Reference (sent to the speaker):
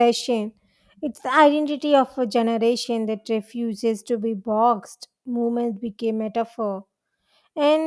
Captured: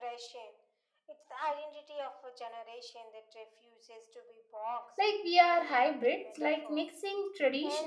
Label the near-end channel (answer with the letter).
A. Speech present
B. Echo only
A